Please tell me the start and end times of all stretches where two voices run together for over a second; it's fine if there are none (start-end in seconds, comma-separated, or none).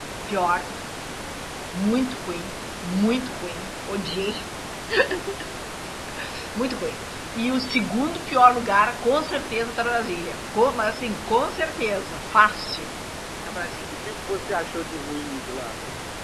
none